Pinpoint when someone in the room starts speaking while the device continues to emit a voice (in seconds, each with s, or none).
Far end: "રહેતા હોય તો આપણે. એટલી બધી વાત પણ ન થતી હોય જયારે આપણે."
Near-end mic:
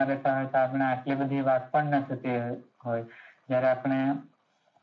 none